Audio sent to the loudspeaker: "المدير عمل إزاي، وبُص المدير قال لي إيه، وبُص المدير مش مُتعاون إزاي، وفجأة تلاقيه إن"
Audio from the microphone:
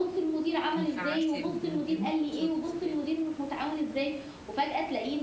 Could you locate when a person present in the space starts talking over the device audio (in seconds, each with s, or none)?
0.7 s